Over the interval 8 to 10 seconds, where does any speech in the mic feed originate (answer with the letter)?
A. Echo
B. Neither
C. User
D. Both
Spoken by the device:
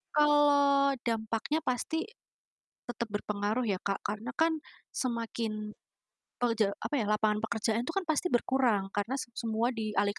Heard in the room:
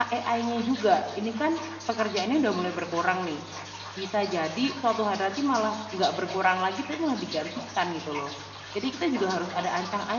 C